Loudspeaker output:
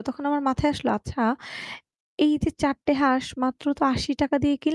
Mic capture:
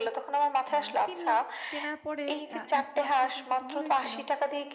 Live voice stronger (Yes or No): No